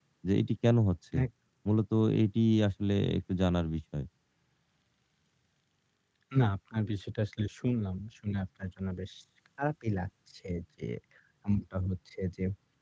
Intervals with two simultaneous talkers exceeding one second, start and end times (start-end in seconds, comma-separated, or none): none